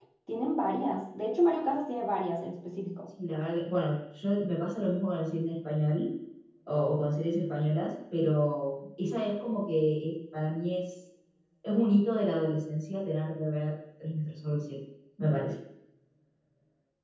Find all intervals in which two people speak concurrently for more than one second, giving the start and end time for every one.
none

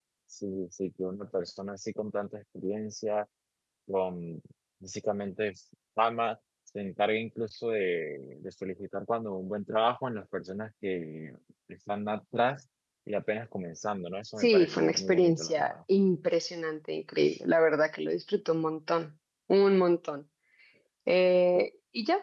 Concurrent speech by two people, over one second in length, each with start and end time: 14.4-15.7

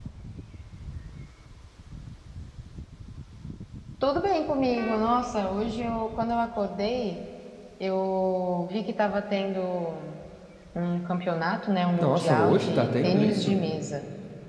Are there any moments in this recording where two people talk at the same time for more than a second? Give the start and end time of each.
11.9-13.6

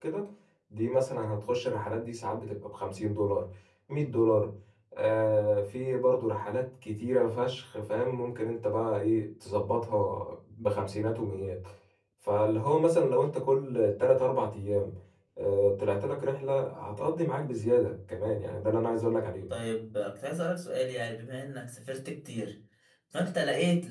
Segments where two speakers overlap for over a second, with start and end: none

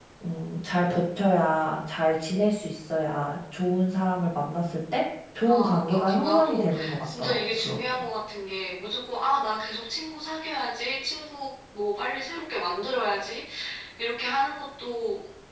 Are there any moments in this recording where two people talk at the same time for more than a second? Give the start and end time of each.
5.4-8.0

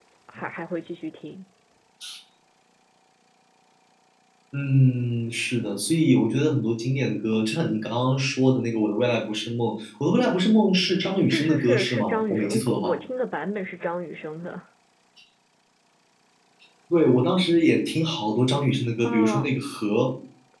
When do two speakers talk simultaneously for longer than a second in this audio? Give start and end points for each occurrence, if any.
11.3-13.0

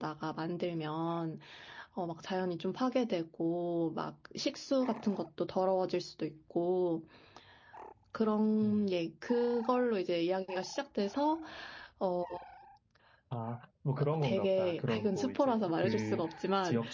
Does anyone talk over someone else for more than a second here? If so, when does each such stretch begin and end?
14.2-16.2

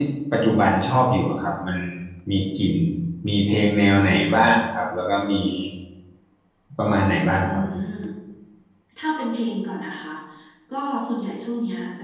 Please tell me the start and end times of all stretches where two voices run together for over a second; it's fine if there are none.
none

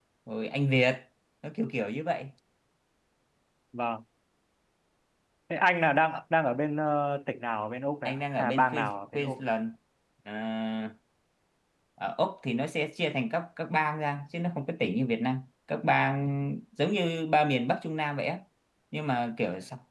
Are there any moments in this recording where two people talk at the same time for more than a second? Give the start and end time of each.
8.1-9.4

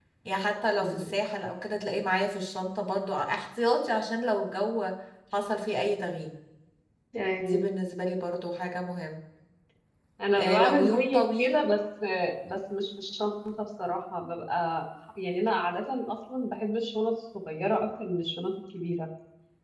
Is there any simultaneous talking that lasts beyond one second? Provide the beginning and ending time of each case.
10.3-11.7

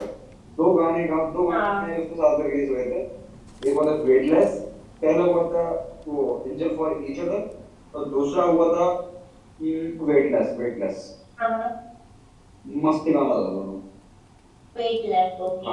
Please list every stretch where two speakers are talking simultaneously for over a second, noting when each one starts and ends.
none

